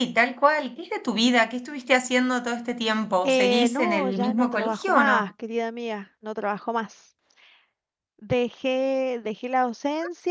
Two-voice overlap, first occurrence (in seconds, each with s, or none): 3.2 s